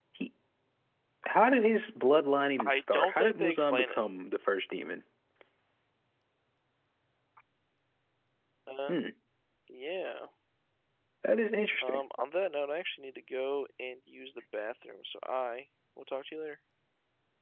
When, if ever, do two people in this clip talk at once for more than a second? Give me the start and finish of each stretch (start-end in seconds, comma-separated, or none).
2.6-4.0